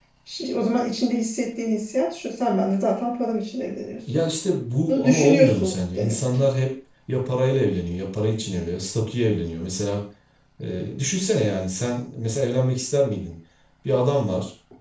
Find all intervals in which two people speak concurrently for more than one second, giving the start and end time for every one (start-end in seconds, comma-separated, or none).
4.9-6.5